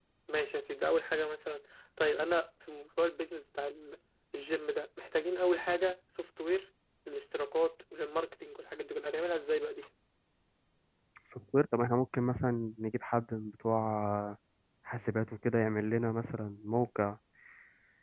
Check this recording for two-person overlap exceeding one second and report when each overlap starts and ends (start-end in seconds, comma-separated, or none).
none